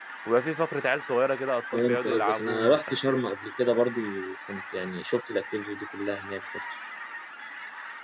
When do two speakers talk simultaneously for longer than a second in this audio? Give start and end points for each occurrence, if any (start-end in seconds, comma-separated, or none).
1.7-3.2